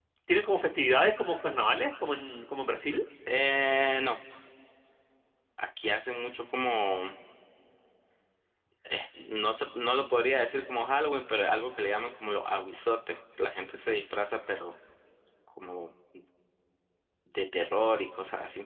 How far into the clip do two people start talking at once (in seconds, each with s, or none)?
none